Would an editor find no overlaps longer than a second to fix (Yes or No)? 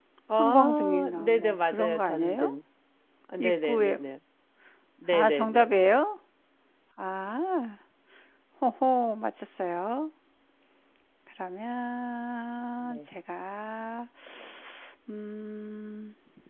No